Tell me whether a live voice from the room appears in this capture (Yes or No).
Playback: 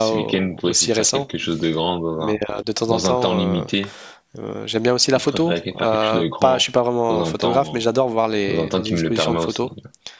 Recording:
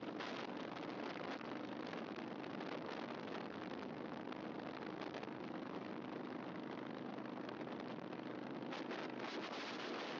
No